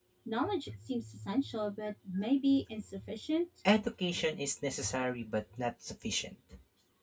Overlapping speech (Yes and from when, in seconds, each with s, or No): No